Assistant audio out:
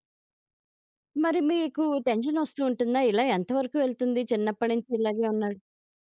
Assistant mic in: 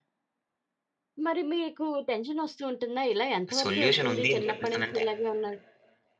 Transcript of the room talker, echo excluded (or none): సొల్యూషనుంది అని చెప్పేసనంటే